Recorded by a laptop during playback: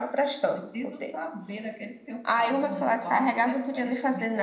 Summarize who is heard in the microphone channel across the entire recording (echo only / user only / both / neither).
echo only